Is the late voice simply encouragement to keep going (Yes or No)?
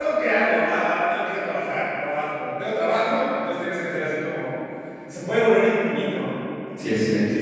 Yes